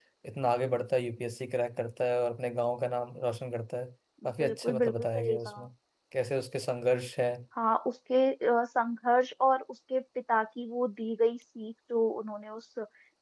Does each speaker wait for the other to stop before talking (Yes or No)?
No